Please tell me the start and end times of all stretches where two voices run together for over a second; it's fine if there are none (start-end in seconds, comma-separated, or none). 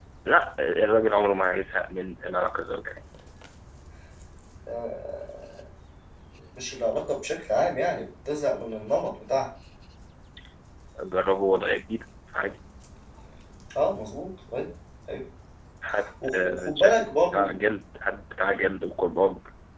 16.2-17.6